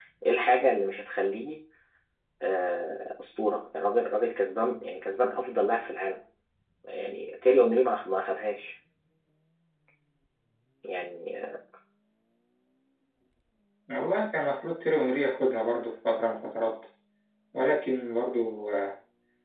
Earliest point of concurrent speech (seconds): none

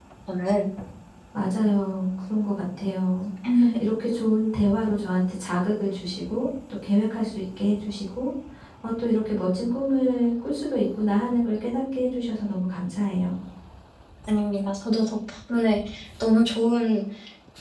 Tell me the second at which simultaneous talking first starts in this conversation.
none

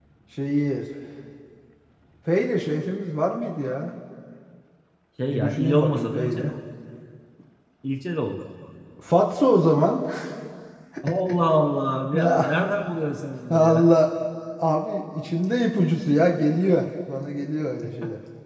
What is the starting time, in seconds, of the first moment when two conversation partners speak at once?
5.3 s

